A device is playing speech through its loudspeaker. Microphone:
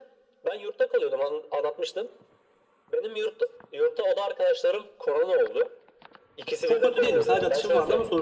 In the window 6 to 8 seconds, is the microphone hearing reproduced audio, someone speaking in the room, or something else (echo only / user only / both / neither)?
both